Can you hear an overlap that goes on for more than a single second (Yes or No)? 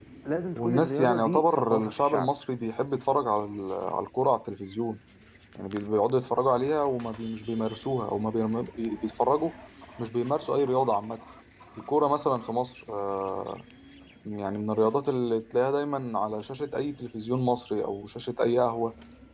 Yes